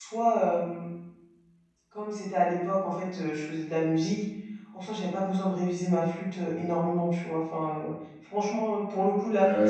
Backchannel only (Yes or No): No